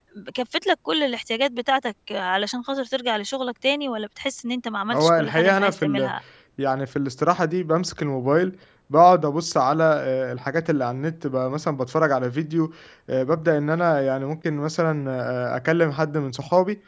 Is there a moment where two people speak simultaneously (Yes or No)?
Yes